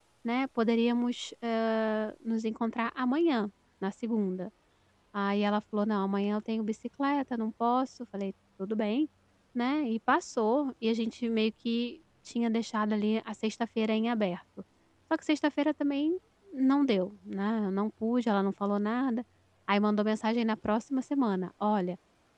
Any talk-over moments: No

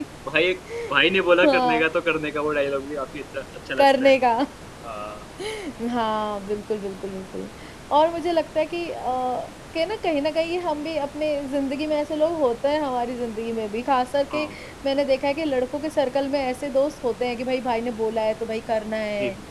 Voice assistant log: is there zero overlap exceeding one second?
Yes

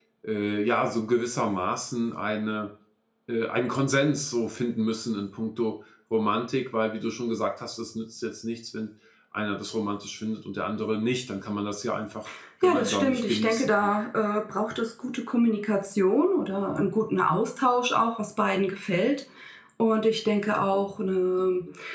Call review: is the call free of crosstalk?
No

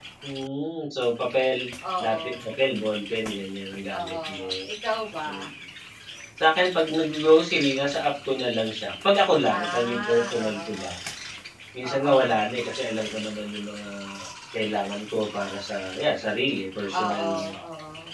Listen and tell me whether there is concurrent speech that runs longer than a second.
Yes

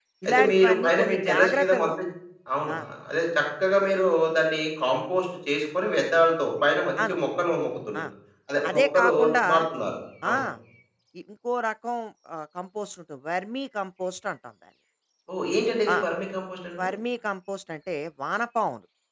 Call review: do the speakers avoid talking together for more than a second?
No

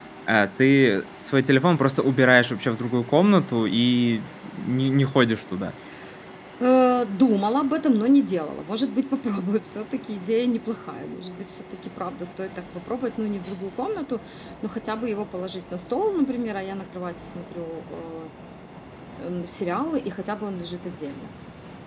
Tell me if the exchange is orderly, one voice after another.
Yes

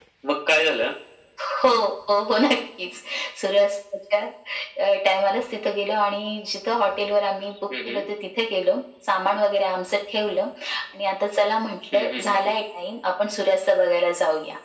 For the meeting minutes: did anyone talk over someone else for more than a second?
No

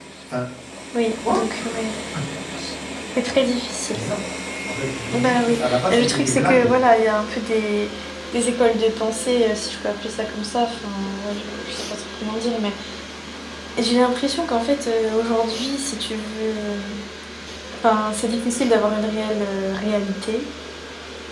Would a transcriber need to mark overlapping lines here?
Yes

